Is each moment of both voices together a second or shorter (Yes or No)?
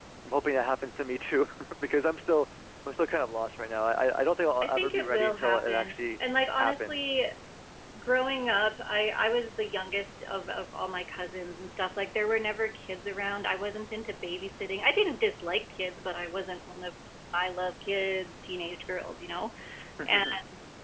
No